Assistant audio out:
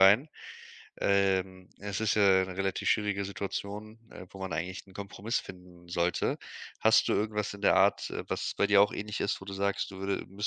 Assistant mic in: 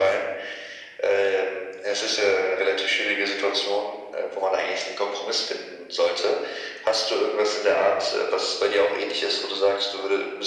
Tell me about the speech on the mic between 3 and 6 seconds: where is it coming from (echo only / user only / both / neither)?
echo only